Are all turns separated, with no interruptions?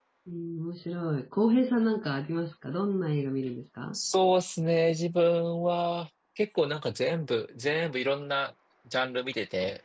Yes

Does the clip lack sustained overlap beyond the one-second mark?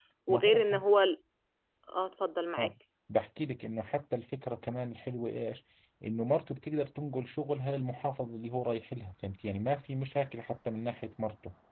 Yes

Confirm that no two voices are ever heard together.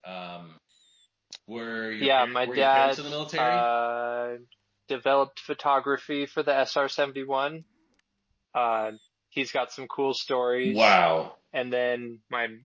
No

